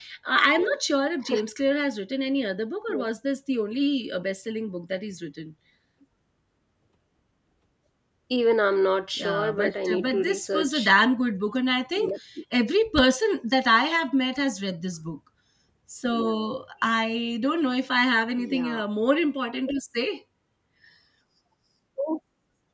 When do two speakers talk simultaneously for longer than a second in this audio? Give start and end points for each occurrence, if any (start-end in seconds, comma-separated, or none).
9.2-10.9